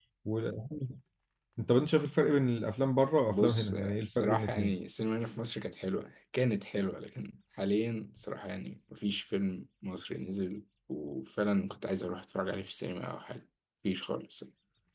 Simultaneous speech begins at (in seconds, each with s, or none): 3.3 s